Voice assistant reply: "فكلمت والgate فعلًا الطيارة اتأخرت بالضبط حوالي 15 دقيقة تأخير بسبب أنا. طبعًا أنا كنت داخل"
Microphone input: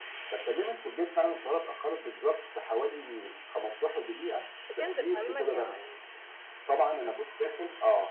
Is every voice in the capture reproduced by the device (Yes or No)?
No